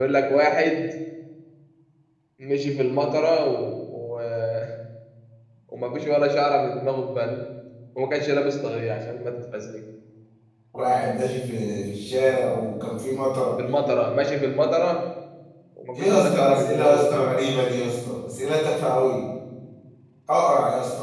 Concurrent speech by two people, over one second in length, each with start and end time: 15.9-17.3

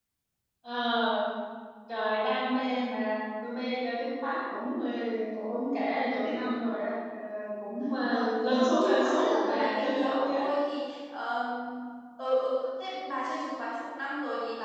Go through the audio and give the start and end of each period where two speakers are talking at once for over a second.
8.1-10.4

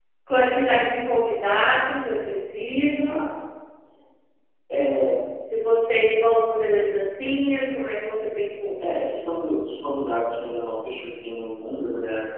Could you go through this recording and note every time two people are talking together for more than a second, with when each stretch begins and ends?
none

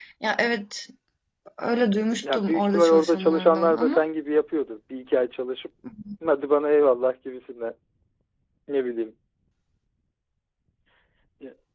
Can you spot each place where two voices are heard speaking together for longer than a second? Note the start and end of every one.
2.3-4.0

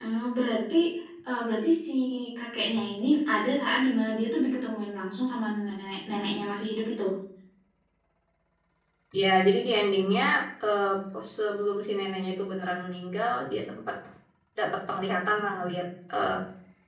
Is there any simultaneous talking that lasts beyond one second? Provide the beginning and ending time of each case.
none

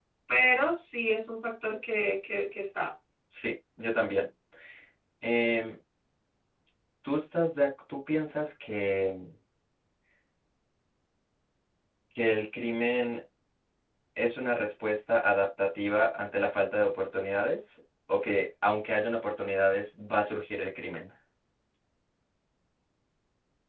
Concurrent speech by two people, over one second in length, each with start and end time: none

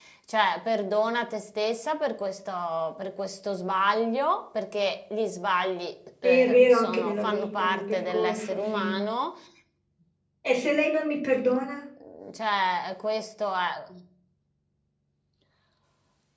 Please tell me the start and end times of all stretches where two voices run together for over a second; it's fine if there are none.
6.2-9.0

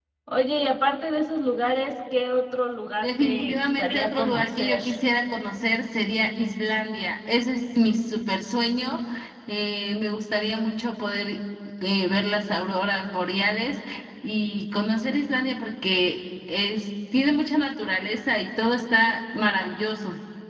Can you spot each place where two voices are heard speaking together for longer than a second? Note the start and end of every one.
3.0-4.8

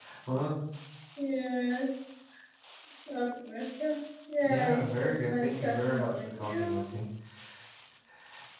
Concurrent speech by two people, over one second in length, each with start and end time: 4.4-7.0

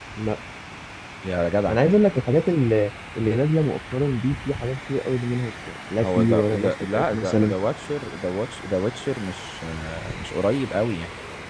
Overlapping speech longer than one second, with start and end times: 6.0-7.5

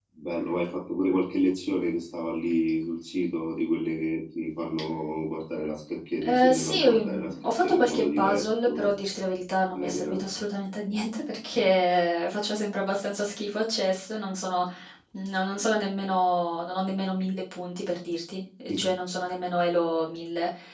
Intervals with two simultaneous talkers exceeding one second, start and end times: 6.3-8.9

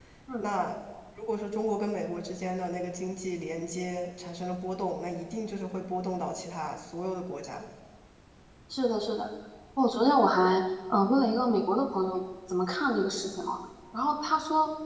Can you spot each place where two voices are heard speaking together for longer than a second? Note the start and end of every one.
none

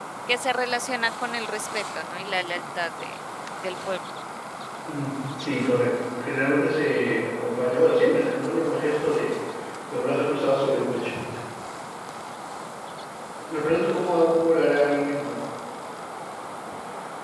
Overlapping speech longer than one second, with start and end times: none

